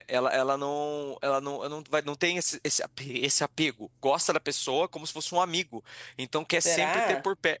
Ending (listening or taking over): listening